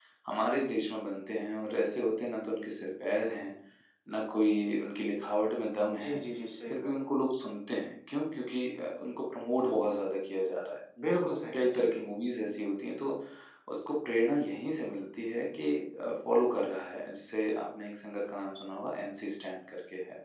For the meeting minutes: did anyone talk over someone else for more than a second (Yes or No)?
No